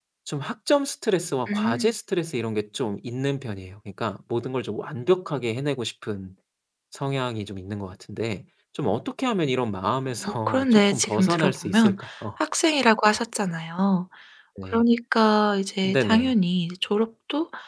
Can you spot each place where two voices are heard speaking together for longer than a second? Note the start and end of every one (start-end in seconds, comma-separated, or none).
10.2-12.0